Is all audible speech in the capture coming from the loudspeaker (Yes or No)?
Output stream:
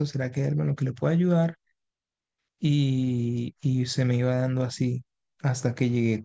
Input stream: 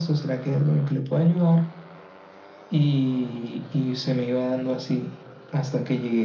Yes